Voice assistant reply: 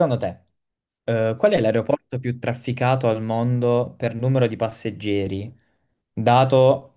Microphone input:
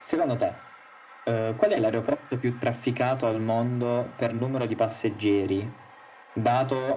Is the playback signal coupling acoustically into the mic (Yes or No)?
Yes